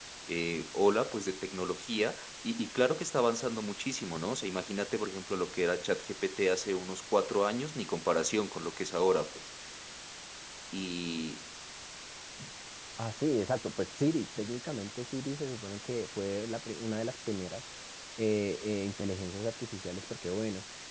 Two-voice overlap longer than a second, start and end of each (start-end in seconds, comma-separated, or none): none